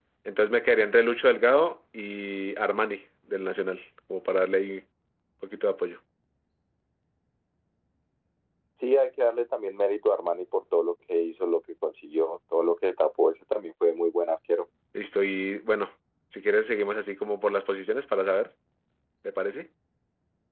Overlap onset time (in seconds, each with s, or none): none